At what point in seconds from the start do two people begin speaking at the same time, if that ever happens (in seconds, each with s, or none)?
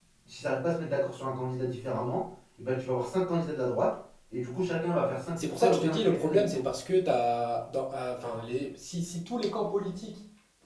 5.4 s